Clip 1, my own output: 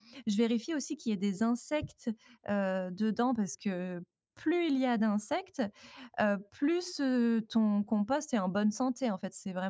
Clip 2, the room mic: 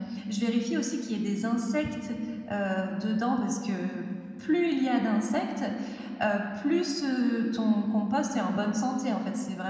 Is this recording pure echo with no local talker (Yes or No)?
Yes